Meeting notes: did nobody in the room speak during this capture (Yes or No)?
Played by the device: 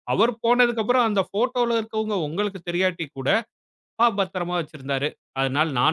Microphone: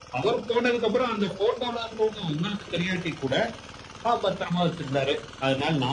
Yes